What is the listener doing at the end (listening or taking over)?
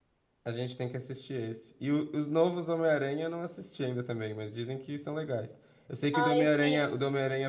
listening